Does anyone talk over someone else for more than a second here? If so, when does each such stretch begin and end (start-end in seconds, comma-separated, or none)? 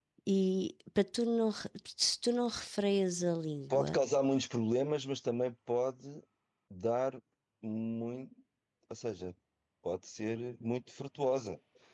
none